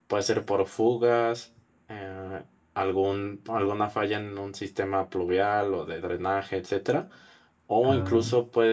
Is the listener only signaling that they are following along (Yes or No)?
Yes